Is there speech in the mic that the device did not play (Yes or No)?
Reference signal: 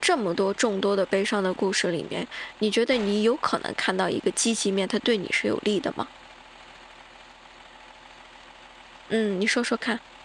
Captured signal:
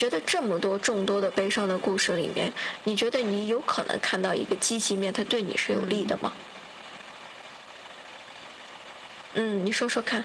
Yes